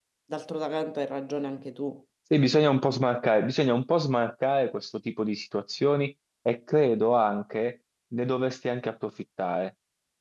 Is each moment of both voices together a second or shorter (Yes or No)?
Yes